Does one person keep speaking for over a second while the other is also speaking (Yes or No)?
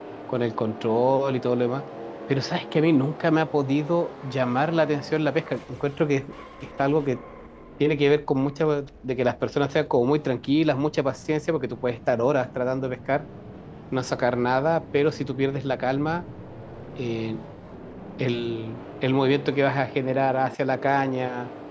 No